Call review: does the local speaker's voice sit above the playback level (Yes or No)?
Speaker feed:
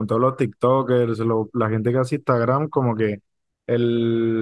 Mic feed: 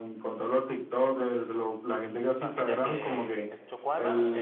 No